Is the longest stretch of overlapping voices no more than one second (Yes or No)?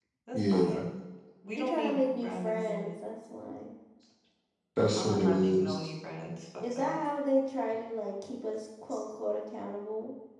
No